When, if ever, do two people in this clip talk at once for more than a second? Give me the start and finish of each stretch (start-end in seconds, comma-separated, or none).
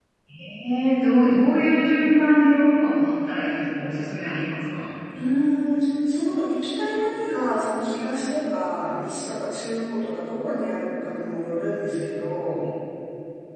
none